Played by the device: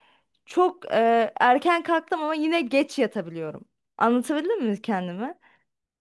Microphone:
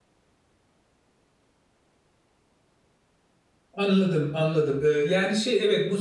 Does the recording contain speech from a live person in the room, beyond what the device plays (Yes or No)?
Yes